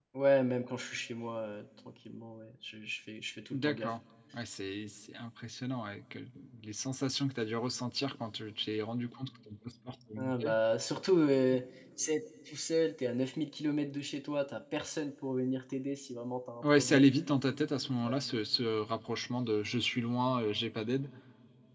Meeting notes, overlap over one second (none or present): none